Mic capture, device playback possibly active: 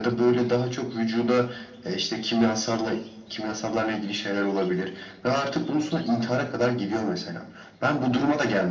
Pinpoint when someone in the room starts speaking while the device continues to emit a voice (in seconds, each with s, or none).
none